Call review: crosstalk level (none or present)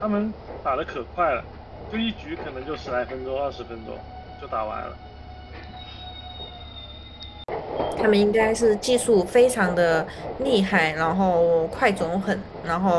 none